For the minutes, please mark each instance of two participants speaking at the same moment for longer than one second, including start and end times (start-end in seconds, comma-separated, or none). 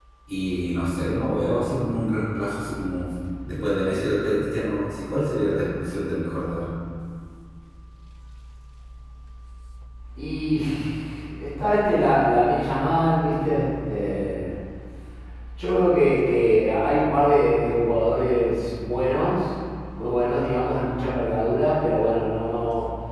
none